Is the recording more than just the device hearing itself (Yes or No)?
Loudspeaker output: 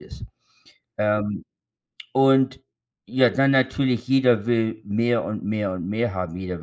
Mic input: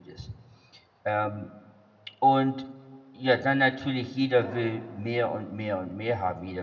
Yes